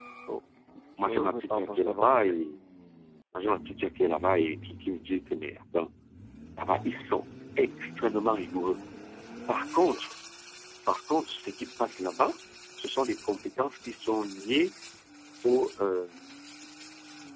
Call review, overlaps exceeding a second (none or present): present